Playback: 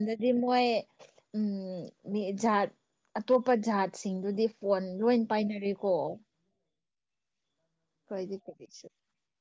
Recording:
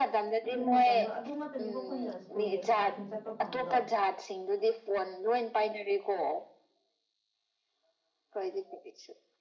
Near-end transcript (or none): ꯑꯗꯨ ꯃꯇꯝꯗꯣ ꯑꯗꯨ ꯉꯥꯛꯇꯅꯤꯀꯣ ꯑꯩꯈꯣꯏꯅ ꯁ꯭ꯀꯨꯜꯒꯤ ꯑꯦꯛꯁꯀꯥꯔꯁꯟ ꯆꯠꯄ ꯐꯪꯕꯗꯣ